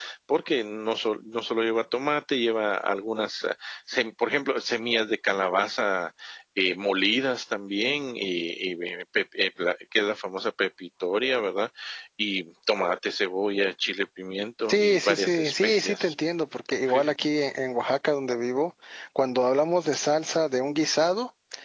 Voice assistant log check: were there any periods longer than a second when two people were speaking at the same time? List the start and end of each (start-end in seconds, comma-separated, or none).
14.7-16.1